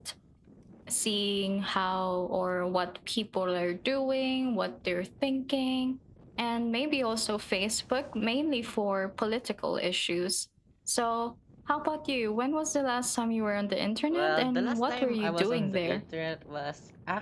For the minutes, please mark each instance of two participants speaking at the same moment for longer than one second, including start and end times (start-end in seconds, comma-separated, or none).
14.1-16.0